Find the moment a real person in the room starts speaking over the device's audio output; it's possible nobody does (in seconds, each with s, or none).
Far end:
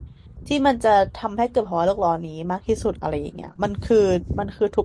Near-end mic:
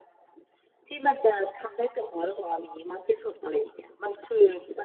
none